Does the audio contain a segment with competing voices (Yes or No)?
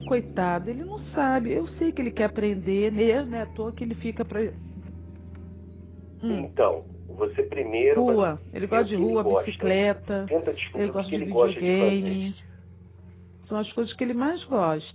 Yes